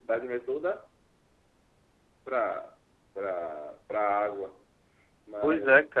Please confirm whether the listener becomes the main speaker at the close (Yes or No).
Yes